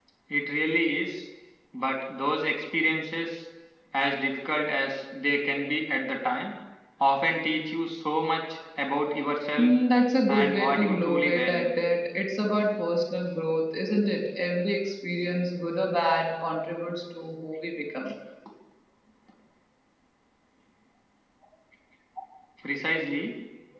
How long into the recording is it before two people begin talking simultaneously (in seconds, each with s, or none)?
10.3 s